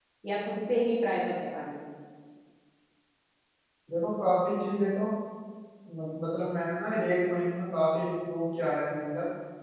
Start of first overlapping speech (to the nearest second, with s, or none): none